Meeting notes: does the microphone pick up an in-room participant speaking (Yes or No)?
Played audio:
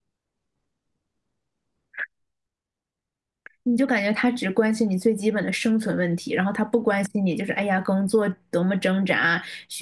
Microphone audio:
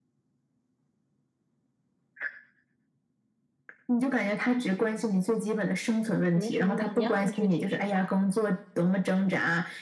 Yes